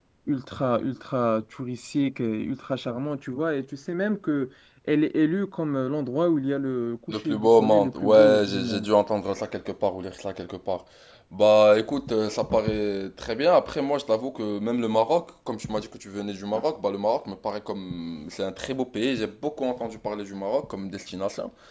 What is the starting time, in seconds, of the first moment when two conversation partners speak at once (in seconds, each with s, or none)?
7.1 s